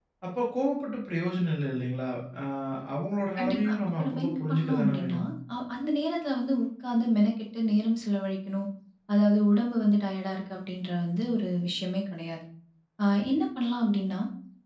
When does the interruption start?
3.4 s

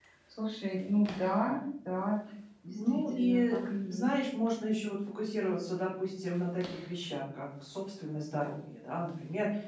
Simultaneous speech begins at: 2.7 s

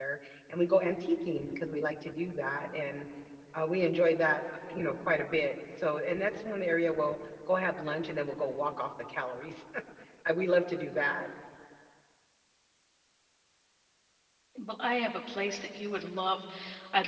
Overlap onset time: none

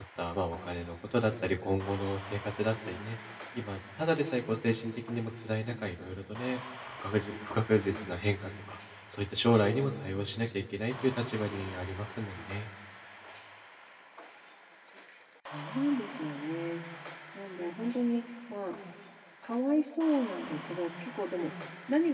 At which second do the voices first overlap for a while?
none

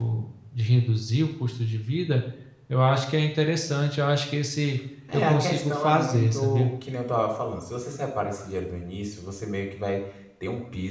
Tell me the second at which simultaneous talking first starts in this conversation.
5.1 s

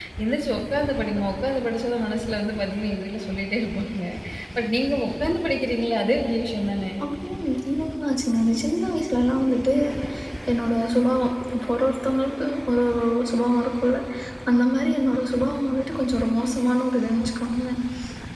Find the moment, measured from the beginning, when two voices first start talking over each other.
none

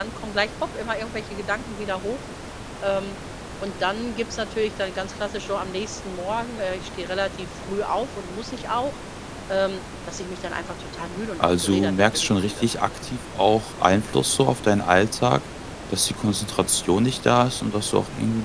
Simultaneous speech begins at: 11.4 s

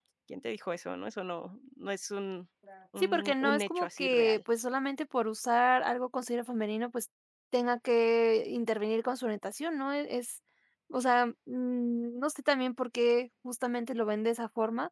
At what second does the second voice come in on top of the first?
3.0 s

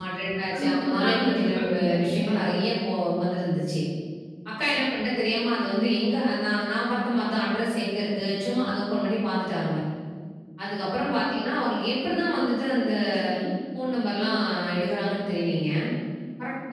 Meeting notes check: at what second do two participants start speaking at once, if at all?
0.6 s

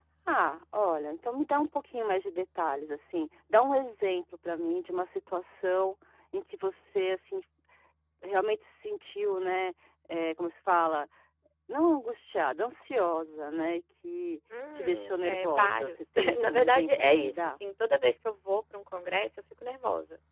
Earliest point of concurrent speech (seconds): 14.5 s

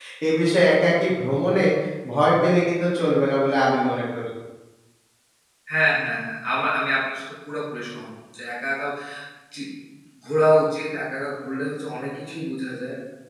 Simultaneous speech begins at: none

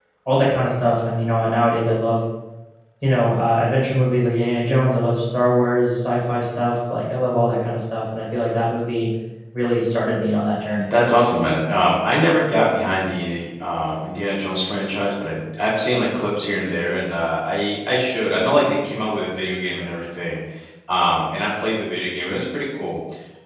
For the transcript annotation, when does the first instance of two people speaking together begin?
none

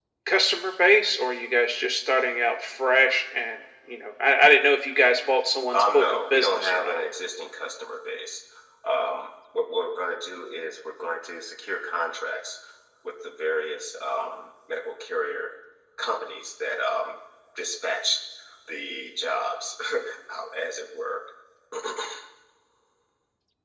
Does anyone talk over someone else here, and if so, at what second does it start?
5.7 s

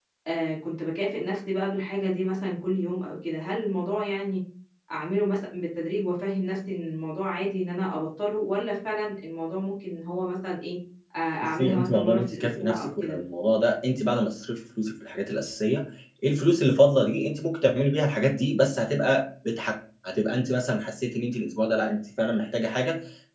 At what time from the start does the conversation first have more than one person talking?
11.6 s

